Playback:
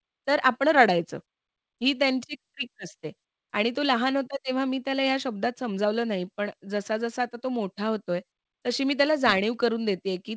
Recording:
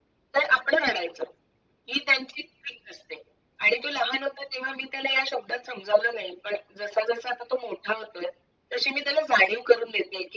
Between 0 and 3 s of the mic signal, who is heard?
echo only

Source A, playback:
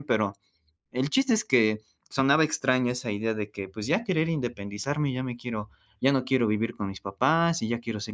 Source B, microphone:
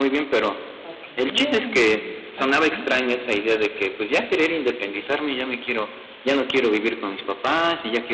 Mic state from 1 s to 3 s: both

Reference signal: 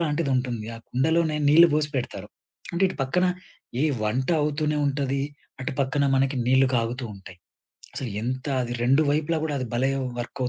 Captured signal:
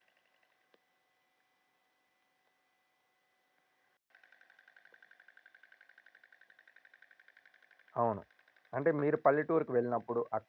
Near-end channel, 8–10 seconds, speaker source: user only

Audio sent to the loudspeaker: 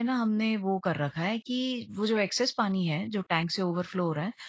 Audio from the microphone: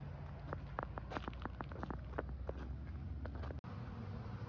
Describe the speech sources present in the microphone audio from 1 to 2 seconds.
neither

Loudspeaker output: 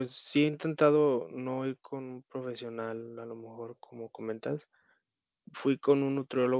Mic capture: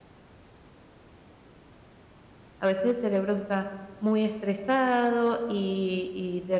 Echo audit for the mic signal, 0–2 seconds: neither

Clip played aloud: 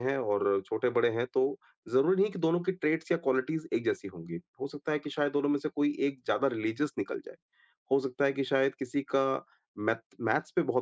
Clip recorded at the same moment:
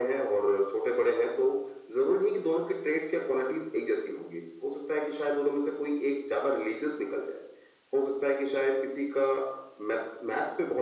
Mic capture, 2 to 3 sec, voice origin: echo only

